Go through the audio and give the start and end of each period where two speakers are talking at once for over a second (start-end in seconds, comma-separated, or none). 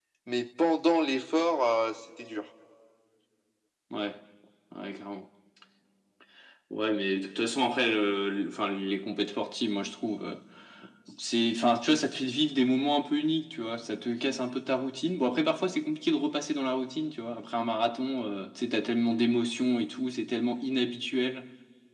none